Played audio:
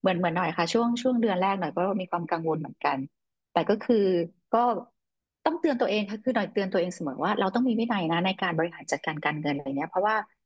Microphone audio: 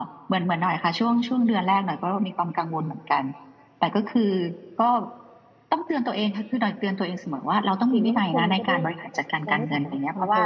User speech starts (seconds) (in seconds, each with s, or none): 7.9 s